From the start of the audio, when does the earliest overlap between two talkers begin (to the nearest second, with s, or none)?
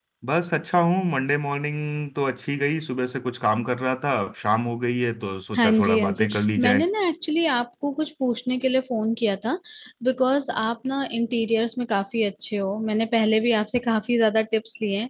6 s